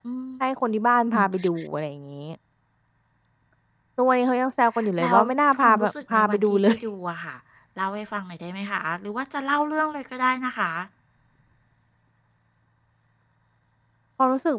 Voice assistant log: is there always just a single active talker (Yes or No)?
No